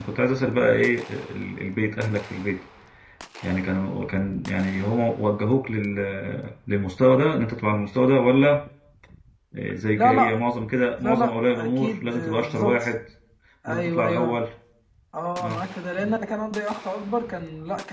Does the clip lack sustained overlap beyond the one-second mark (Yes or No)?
No